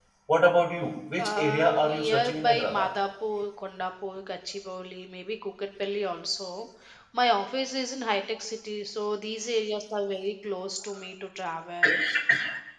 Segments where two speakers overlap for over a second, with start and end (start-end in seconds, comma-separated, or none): 1.2-2.9